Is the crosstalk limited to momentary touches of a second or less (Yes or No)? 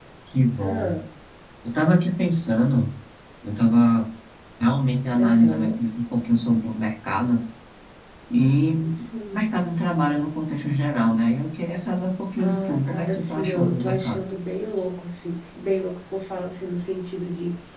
No